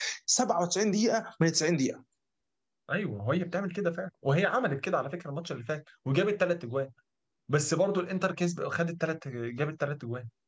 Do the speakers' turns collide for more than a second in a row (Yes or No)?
No